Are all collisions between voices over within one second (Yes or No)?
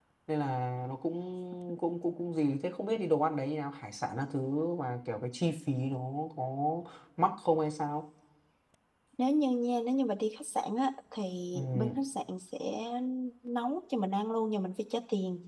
Yes